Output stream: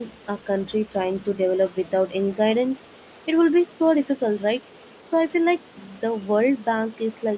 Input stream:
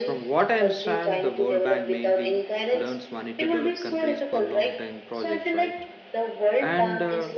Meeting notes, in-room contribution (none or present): present